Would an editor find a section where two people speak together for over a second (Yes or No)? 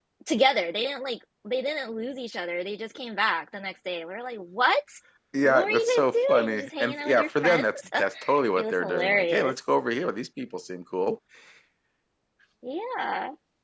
Yes